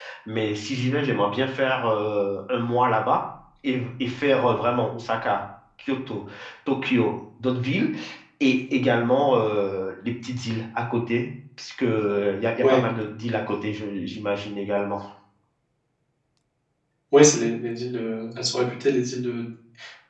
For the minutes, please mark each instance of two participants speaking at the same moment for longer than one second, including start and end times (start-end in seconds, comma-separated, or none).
none